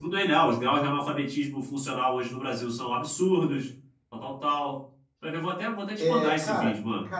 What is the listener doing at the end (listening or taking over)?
taking over